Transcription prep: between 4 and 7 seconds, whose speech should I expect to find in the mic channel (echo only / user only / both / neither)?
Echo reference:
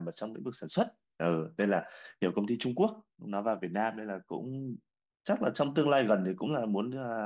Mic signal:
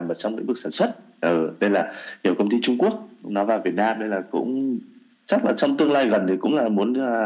echo only